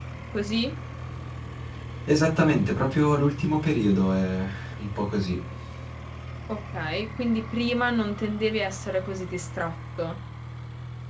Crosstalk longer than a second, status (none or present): none